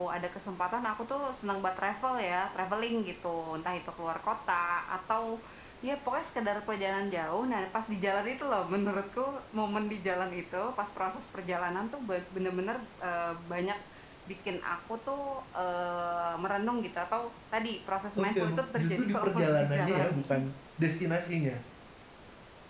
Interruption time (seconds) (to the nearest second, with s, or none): 18 s